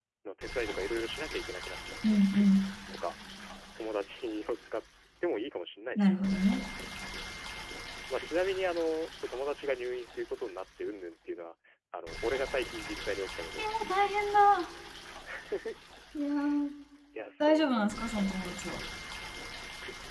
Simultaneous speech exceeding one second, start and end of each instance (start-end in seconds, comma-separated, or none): none